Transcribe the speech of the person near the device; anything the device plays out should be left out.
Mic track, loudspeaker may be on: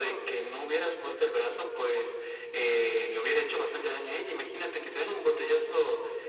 none

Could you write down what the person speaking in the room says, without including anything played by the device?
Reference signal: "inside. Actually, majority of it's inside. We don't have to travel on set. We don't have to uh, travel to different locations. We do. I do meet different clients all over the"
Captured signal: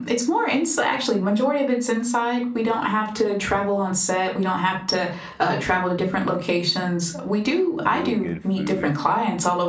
really good food.

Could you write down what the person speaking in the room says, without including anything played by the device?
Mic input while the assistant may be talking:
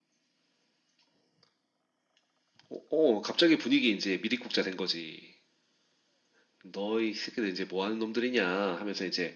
none

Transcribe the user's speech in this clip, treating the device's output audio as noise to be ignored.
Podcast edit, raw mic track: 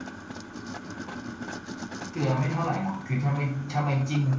none

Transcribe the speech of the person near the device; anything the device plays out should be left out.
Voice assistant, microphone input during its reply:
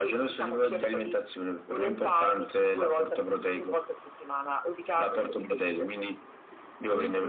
none

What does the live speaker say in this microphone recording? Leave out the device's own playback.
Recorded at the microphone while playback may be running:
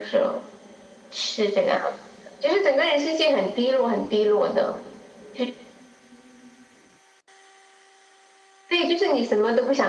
none

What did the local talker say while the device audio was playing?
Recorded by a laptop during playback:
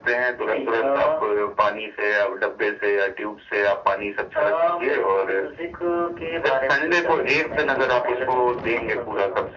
none

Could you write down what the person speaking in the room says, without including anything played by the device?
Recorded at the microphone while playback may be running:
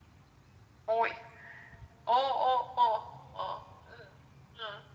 none

